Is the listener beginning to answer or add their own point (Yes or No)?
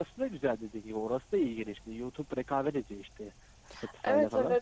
Yes